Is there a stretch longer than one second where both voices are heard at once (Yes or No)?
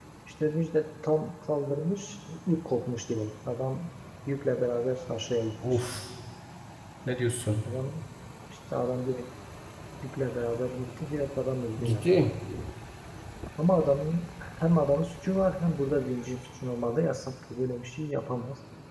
No